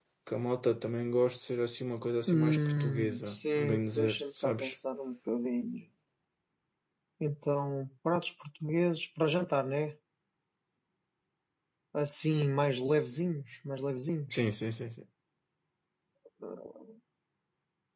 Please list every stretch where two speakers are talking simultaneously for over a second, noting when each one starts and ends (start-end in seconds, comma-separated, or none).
2.3-4.8